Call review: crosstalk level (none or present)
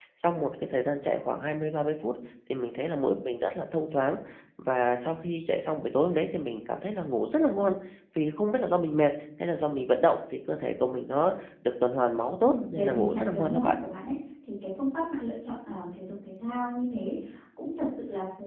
present